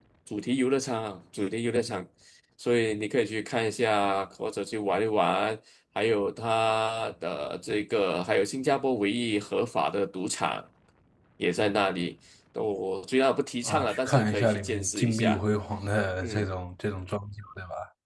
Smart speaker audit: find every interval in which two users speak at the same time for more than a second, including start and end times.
13.7-15.4

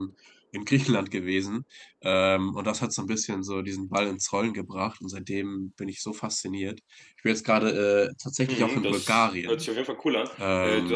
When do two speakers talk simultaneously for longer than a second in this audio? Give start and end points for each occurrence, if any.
8.5-9.7

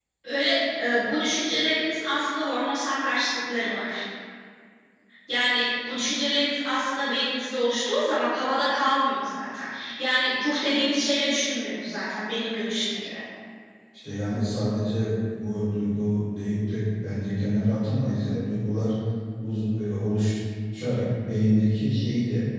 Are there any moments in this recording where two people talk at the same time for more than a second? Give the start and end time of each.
none

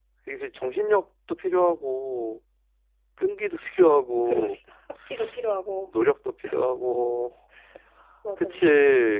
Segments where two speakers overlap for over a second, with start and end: none

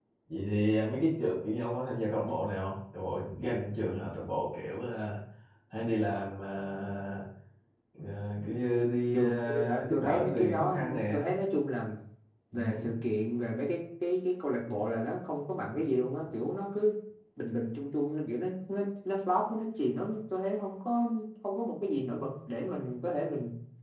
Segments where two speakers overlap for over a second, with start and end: 9.1-11.2

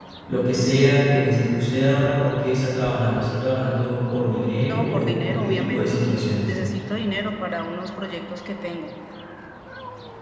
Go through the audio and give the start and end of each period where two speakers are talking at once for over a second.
4.6-6.0

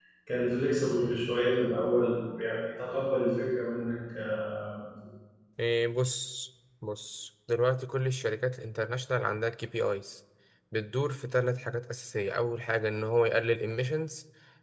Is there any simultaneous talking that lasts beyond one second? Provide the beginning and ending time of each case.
none

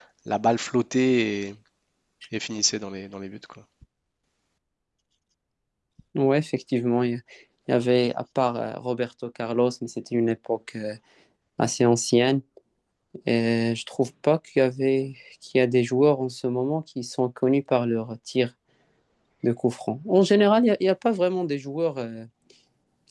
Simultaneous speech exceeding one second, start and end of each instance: none

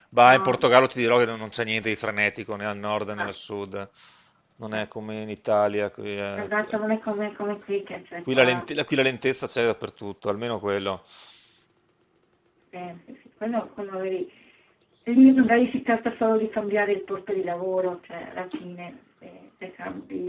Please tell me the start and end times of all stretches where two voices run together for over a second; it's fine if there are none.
none

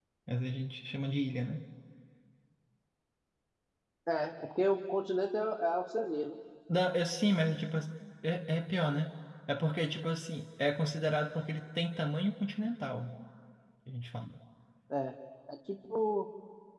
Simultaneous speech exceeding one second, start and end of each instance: none

